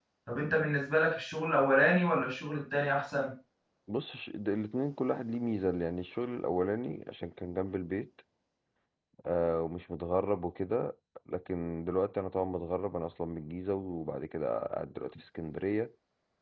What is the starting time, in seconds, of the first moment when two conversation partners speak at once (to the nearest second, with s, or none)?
none